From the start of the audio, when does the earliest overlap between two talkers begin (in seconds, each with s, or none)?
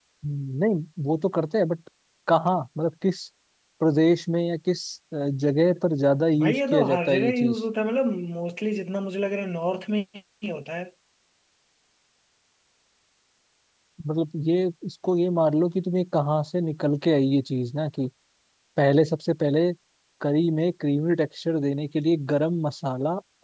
6.3 s